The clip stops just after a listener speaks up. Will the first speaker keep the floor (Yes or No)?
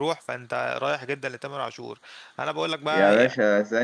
No